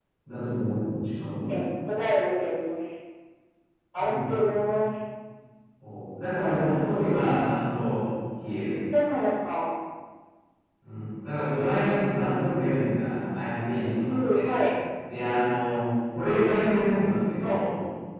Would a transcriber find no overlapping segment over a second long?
Yes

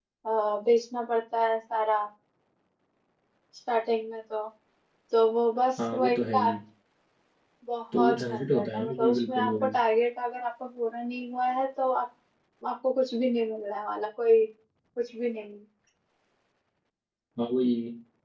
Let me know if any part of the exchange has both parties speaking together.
Yes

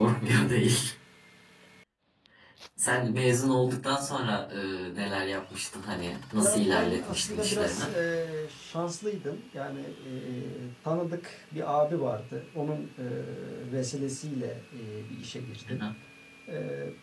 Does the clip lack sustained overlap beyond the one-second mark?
No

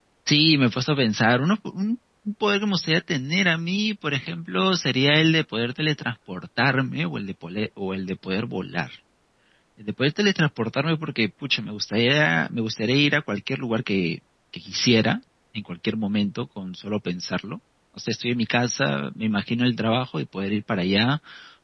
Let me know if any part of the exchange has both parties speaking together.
No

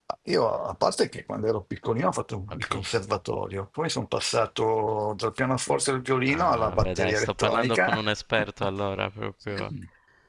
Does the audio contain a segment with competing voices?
Yes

